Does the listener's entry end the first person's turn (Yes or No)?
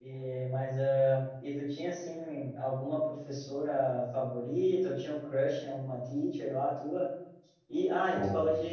No